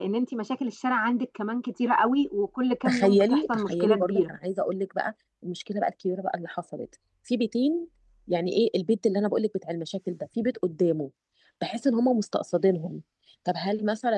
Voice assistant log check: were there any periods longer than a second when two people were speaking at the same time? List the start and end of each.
2.9-4.3

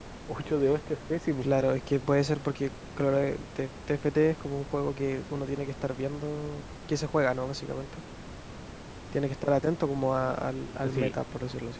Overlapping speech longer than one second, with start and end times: none

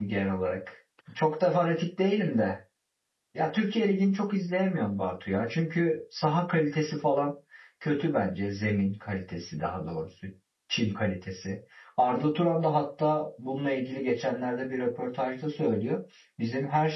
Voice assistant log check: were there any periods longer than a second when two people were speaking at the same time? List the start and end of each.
none

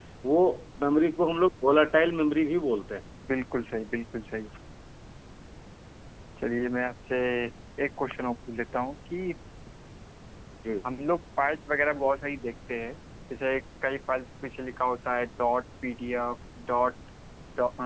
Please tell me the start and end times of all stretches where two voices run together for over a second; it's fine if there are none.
none

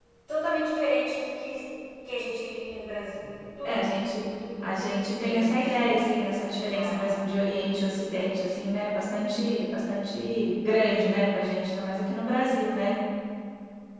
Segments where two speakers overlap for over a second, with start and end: 4.6-5.9

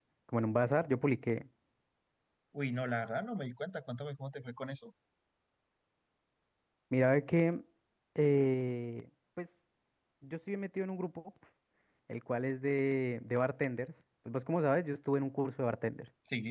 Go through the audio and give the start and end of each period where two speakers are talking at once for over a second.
none

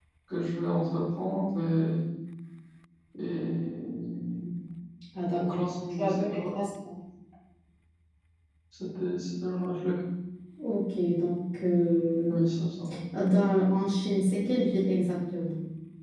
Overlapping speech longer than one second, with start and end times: 5.4-6.7

